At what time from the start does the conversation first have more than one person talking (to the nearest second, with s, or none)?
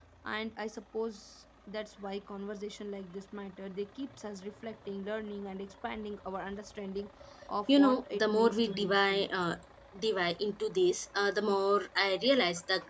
8 s